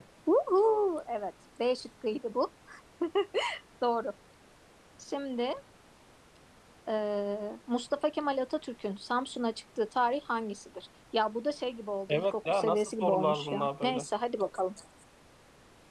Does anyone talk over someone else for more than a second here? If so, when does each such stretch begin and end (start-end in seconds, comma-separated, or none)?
12.1-14.1